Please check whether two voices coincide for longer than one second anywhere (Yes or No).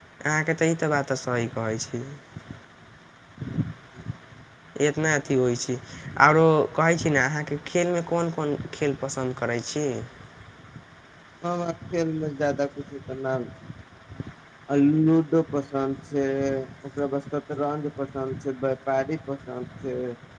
No